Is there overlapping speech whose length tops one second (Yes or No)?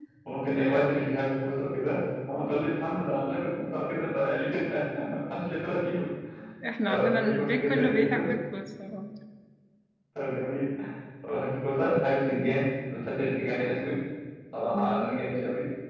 Yes